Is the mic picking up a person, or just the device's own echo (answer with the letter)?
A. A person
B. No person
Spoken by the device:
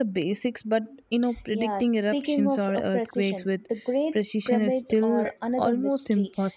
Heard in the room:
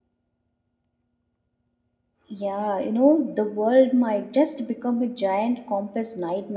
A